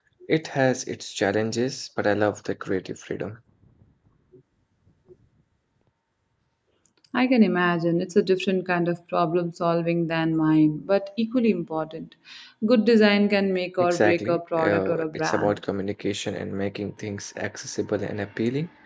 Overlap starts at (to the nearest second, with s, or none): 14 s